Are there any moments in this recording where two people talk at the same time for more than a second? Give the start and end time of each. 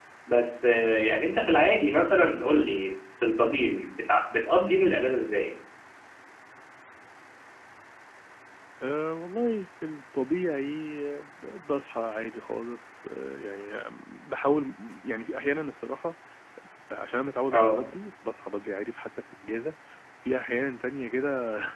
none

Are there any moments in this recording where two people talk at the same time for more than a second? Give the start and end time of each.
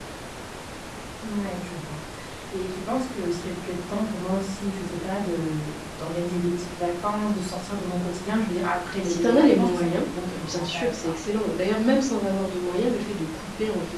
9.0-11.1

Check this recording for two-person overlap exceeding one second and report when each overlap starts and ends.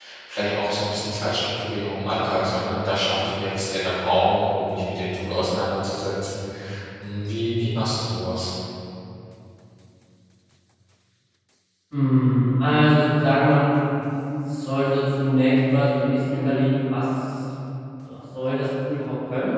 none

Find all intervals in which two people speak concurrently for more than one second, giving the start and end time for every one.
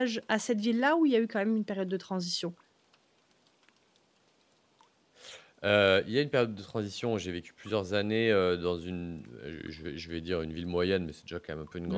none

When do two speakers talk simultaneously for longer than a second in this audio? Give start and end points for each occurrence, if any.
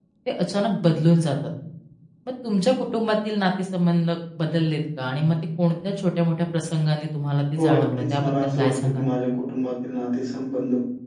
7.6-9.1

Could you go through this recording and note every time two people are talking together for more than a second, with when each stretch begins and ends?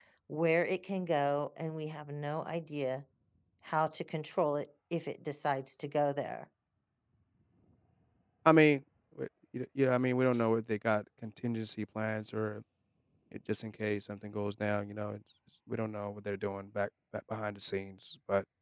none

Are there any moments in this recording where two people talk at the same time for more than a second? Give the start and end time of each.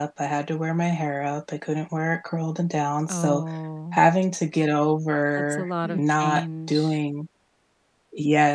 5.3-7.0

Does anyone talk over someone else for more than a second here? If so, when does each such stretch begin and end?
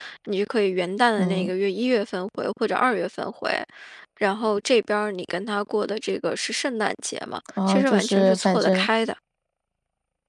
7.7-8.9

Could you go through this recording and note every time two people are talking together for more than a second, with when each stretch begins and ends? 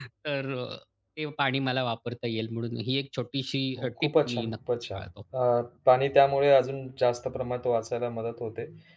3.8-5.1

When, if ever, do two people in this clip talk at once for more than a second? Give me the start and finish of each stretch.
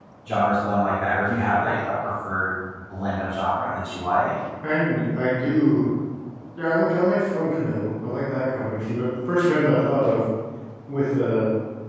none

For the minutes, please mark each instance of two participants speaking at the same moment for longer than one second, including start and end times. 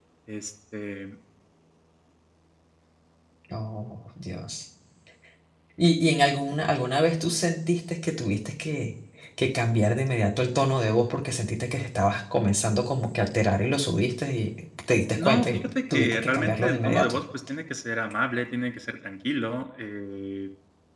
15.1-17.2

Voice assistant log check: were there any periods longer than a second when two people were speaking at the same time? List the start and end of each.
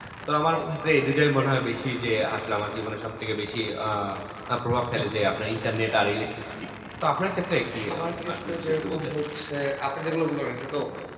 7.9-9.2

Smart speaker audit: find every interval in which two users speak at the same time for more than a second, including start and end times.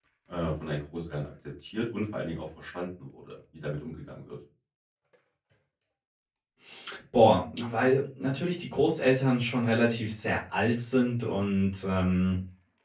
none

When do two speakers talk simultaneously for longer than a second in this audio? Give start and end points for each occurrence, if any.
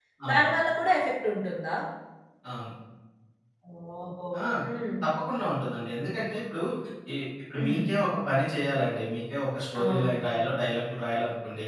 none

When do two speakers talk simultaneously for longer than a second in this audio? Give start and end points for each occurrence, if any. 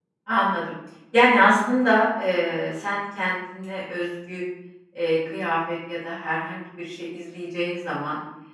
none

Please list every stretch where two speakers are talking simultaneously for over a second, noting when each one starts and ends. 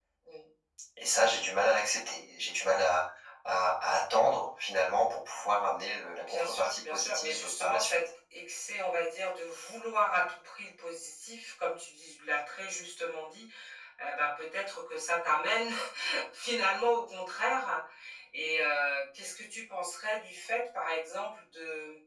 6.1-8.0

